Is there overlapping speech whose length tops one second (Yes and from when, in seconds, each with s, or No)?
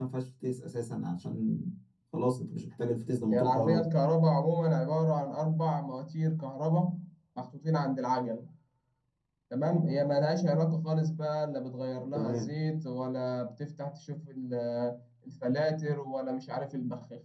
No